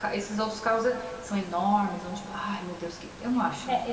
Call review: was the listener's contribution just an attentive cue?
No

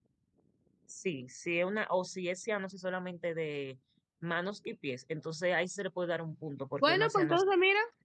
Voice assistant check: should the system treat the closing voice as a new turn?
Yes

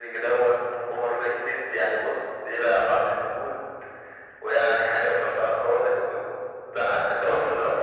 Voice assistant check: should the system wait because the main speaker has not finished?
Yes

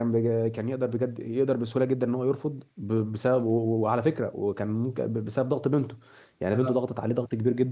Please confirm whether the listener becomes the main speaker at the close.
No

